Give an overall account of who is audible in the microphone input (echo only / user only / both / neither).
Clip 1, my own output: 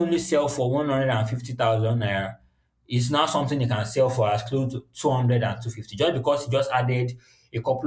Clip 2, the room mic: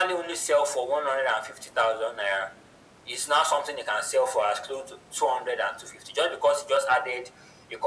echo only